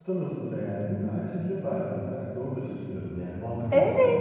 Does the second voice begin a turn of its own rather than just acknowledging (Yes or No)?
Yes